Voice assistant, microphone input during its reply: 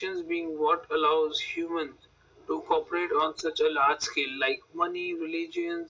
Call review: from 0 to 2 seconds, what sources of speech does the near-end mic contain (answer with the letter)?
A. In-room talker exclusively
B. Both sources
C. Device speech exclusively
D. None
C